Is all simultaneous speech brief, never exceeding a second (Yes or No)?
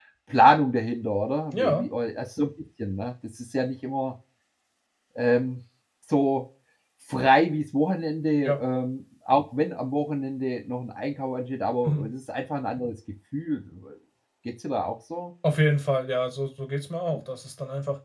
Yes